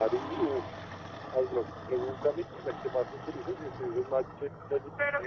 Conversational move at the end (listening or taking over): taking over